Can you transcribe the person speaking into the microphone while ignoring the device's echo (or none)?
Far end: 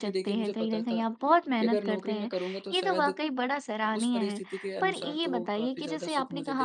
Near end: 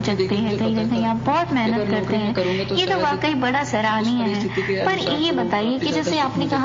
none